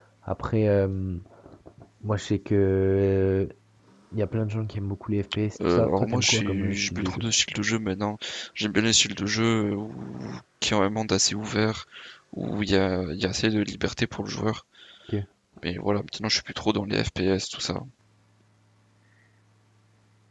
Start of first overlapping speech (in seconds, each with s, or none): 5.5 s